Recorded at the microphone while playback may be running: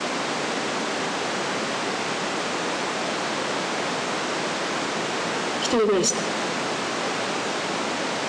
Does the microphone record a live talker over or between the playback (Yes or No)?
Yes